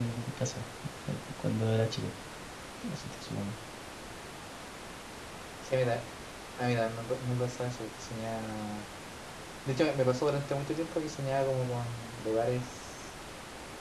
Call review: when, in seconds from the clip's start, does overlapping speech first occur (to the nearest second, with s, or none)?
none